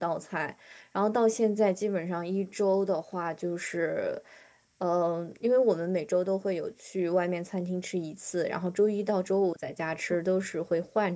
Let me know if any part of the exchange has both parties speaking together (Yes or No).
No